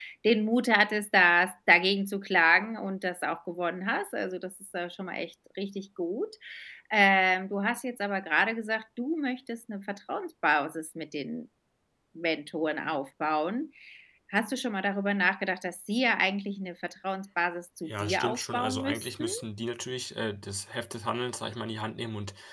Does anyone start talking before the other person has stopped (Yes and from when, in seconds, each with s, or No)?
Yes, from 17.9 s